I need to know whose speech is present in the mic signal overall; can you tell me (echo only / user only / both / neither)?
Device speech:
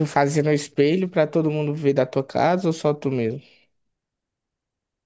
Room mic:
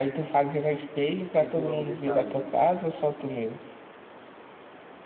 both